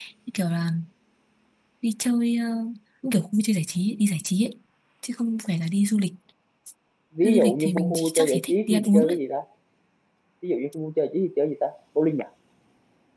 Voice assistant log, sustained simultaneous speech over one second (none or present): present